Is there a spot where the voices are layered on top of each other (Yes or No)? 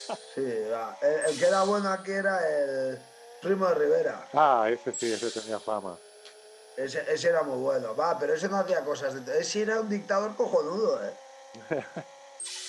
No